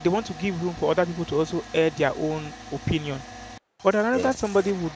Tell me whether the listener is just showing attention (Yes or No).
Yes